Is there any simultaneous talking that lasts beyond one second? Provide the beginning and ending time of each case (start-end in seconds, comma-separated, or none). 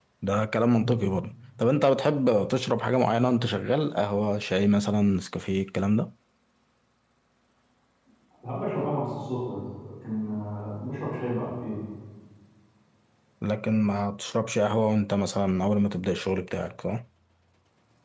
none